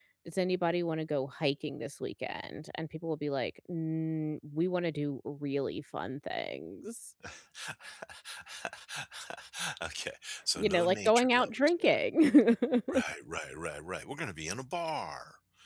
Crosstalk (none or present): present